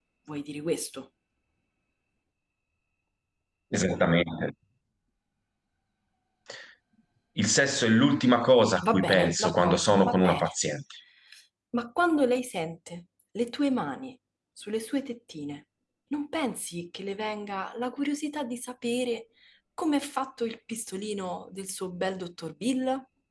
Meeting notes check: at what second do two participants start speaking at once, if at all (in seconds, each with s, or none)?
8.8 s